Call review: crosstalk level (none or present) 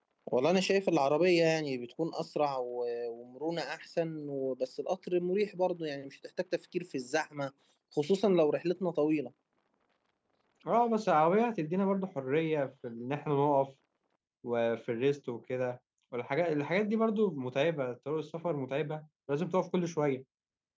none